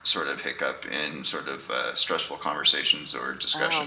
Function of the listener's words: taking over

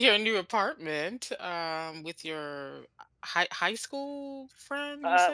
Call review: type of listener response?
taking over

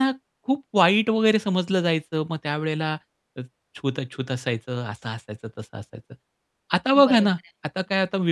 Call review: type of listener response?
listening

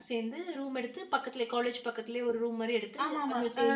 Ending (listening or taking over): taking over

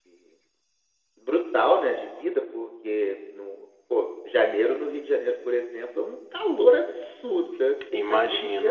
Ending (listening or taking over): listening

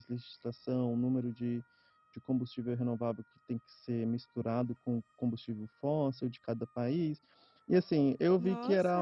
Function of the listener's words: taking over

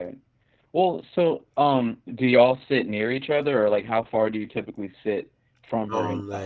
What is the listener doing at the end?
taking over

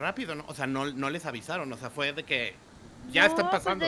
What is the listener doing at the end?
taking over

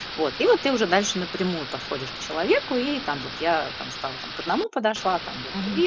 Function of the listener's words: taking over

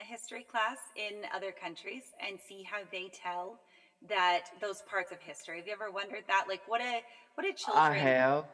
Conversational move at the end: listening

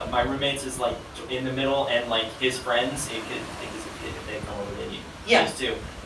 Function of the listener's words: listening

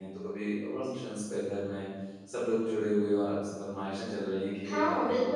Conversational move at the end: taking over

